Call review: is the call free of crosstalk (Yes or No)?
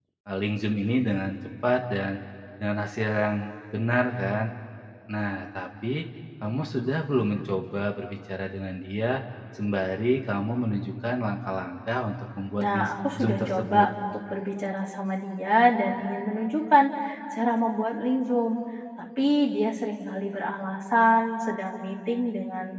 No